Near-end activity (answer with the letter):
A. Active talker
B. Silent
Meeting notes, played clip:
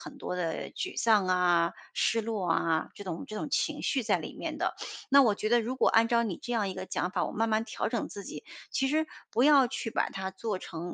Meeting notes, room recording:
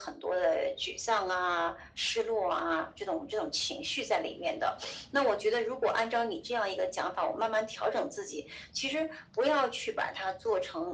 B